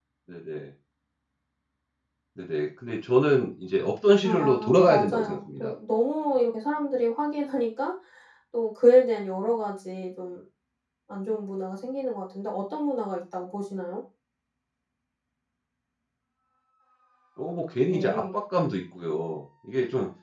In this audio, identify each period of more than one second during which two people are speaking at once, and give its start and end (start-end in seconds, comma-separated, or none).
4.2-5.7